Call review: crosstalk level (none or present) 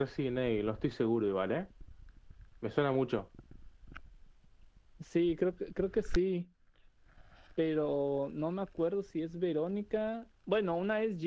none